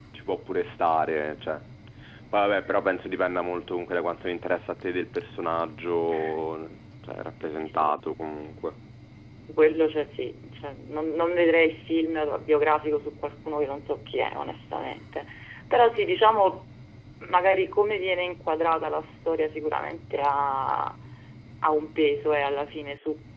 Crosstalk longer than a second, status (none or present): none